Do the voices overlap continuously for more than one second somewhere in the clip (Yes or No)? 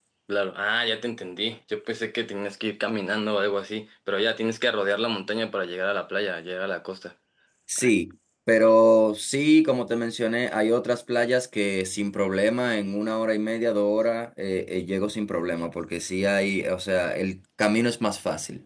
No